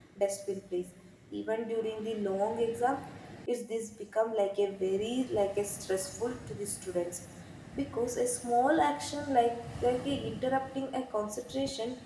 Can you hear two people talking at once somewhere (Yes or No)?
No